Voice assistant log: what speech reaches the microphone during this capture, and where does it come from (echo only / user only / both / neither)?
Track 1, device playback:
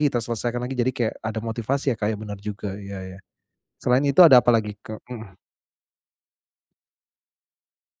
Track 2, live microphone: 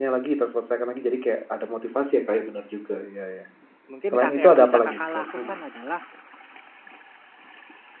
both